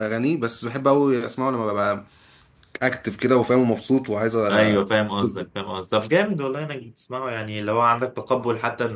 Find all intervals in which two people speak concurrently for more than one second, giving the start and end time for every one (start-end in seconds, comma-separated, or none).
none